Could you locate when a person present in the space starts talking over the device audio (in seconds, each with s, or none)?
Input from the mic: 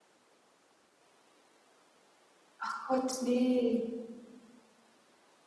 2.6 s